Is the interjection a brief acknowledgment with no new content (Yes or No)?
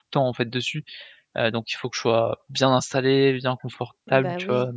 No